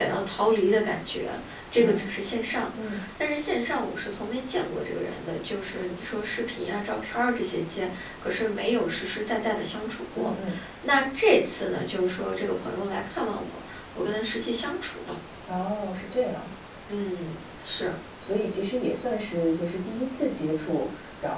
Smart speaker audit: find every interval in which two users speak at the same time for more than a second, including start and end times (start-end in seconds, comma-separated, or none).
none